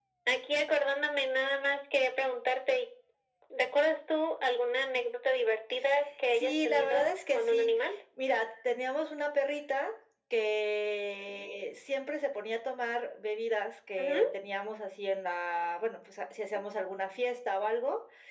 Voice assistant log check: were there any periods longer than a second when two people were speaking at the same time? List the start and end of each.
6.3-7.7

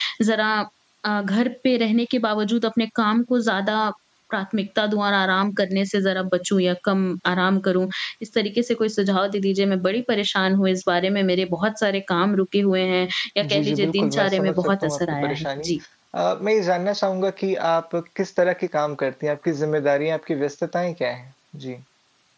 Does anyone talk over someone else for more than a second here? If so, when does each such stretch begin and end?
13.4-15.7

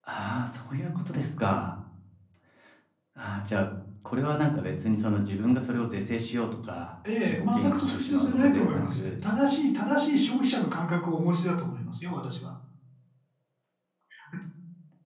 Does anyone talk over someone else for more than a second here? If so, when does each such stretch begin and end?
7.2-9.1

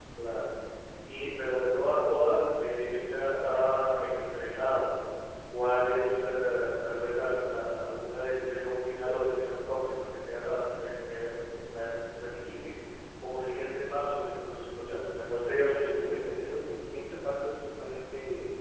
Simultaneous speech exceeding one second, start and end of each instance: none

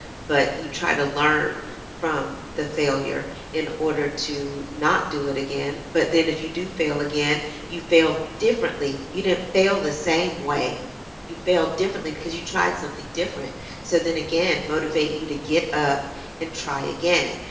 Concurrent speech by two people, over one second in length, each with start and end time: none

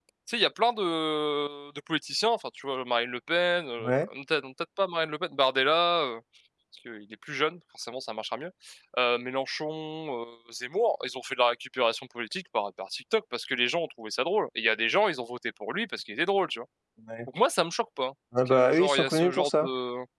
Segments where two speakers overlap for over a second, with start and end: 18.5-19.7

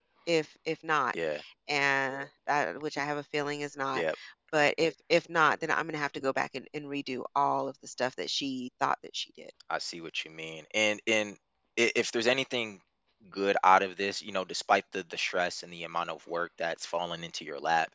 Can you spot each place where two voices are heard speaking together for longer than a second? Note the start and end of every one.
none

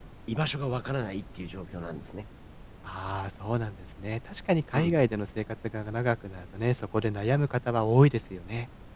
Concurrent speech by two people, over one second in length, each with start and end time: none

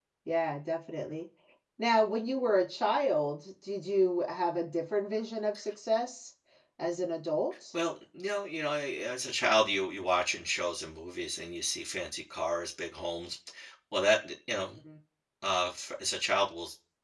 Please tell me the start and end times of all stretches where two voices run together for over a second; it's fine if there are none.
none

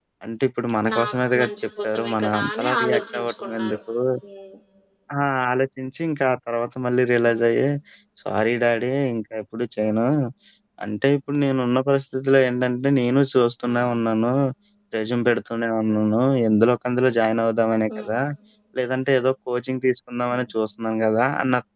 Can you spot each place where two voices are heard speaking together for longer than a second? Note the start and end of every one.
1.4-3.8

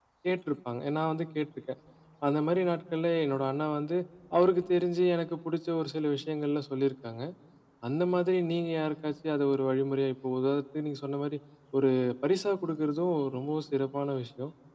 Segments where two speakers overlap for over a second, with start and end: none

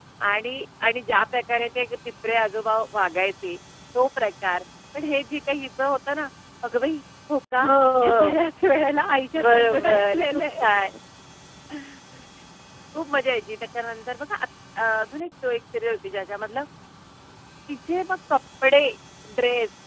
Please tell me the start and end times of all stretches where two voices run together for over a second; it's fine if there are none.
9.3-10.6

